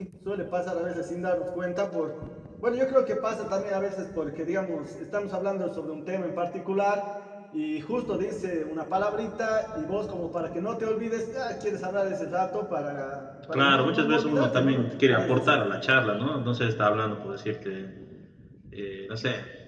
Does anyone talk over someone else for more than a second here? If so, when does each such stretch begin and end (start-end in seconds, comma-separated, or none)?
13.5-15.6